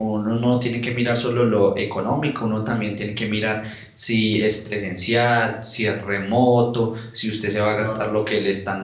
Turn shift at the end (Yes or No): No